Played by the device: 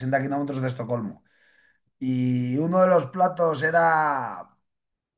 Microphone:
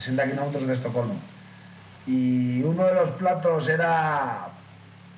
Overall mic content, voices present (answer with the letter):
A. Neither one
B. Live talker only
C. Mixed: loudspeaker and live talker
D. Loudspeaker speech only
D